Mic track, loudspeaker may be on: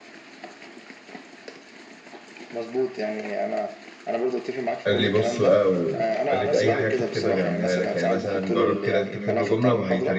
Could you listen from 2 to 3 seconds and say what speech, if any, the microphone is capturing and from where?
echo only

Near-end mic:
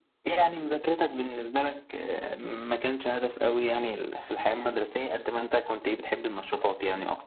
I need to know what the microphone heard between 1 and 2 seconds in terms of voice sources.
echo only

